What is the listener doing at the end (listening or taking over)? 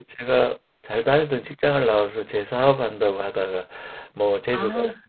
listening